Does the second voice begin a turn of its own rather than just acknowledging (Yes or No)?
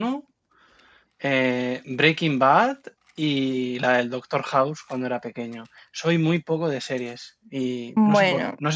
No